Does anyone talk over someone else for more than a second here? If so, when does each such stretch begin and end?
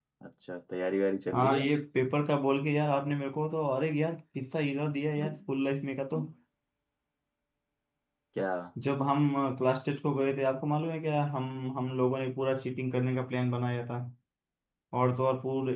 none

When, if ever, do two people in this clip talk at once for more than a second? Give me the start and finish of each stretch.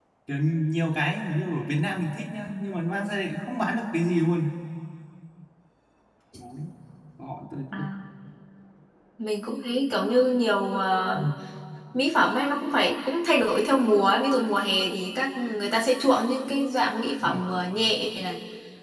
none

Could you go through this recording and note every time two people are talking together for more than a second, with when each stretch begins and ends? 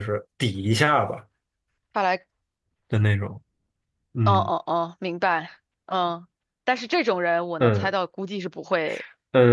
none

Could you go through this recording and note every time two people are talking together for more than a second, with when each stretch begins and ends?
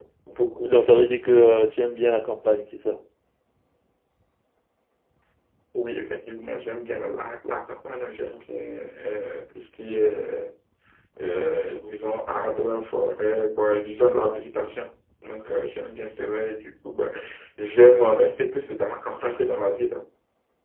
none

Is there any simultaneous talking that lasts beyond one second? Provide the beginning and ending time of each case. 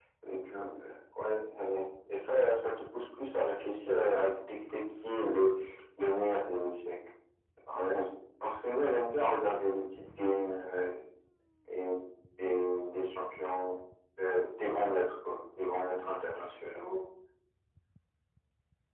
none

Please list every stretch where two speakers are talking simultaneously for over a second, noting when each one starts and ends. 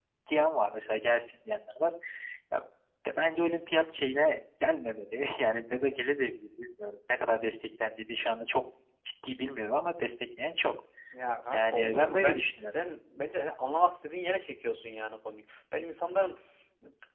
11.5-12.8

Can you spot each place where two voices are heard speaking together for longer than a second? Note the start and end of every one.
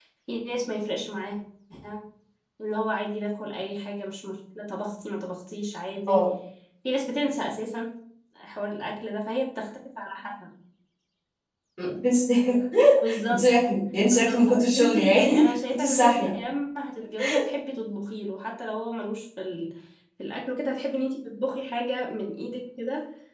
14.0-16.3

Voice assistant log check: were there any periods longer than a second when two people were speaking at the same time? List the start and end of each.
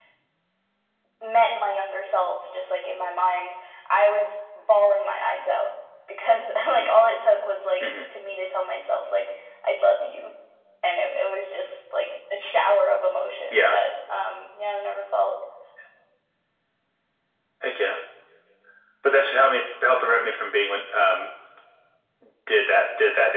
none

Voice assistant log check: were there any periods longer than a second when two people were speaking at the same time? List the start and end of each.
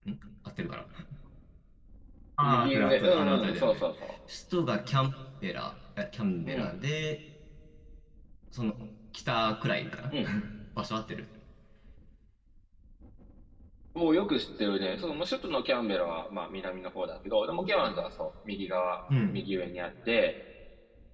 2.4-4.1

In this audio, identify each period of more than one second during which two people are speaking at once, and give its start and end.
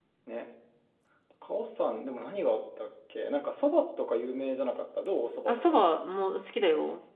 none

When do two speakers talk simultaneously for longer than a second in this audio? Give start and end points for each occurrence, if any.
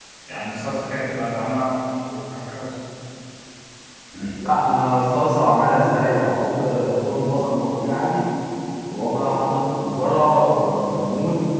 none

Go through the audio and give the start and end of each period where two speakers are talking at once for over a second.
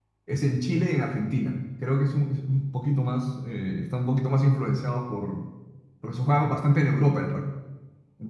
none

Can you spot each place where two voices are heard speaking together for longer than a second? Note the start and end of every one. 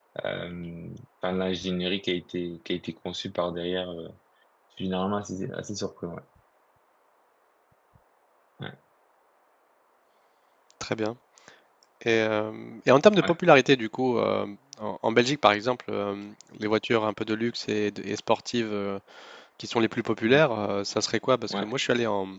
none

